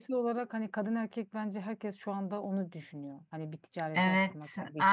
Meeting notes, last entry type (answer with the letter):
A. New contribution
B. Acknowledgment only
A